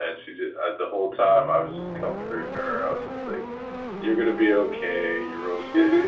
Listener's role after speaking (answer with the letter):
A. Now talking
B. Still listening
B